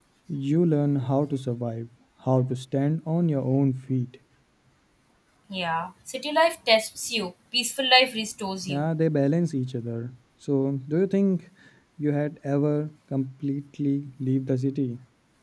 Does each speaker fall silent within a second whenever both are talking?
Yes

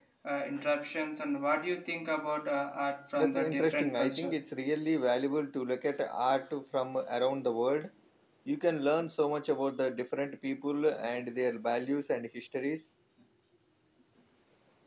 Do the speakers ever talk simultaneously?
Yes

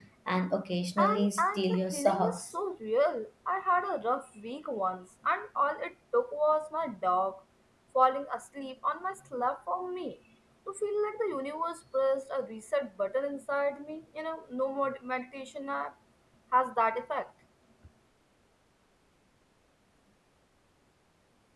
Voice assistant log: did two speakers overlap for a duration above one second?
Yes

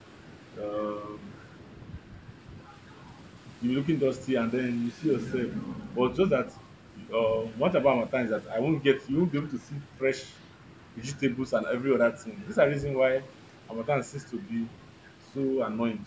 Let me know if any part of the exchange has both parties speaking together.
No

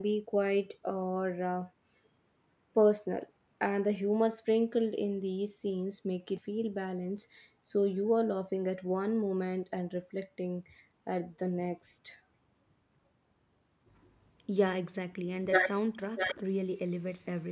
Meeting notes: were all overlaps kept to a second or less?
Yes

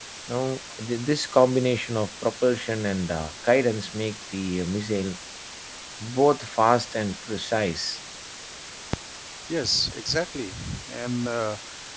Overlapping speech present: No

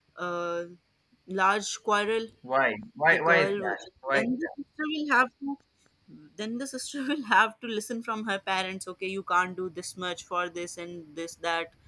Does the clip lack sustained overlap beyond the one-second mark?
No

